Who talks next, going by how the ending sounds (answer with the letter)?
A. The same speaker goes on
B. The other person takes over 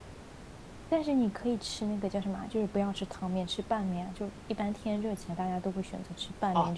B